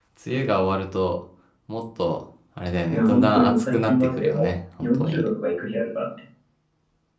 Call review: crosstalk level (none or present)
present